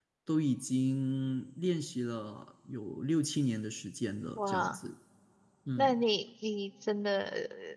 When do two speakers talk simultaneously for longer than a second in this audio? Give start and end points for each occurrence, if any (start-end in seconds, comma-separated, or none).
none